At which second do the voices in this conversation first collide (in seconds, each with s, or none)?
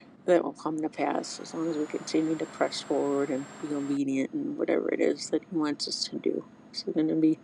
none